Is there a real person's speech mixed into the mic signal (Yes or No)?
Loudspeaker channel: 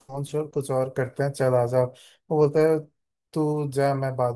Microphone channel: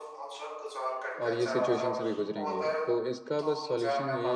Yes